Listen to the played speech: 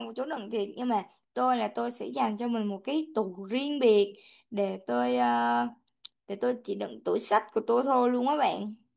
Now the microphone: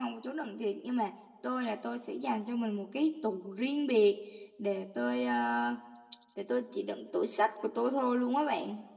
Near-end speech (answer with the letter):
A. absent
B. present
A